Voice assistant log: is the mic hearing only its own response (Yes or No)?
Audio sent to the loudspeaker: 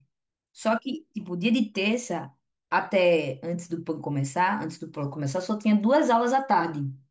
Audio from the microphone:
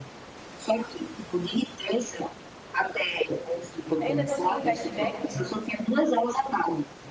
No